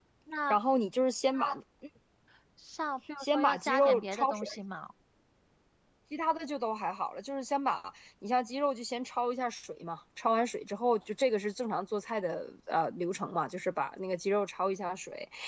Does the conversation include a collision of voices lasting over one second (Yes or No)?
Yes